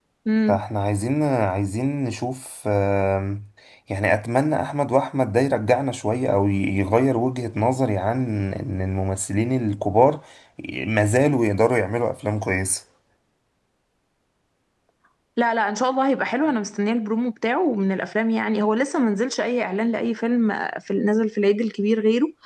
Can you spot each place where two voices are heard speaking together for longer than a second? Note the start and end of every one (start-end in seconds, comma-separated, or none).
none